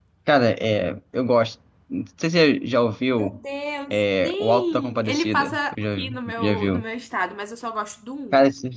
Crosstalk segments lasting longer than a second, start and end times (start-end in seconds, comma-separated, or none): 3.9-6.8